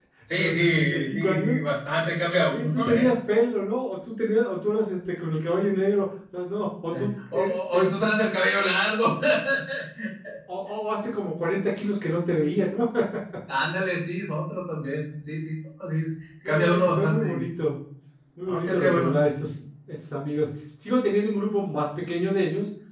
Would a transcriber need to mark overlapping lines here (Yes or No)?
Yes